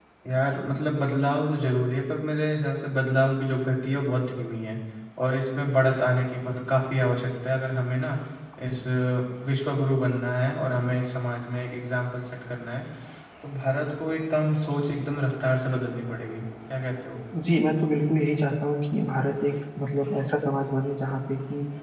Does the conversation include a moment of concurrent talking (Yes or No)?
No